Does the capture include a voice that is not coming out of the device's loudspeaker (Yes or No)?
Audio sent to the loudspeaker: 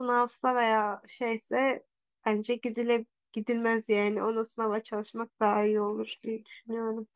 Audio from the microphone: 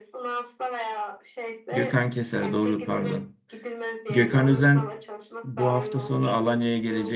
Yes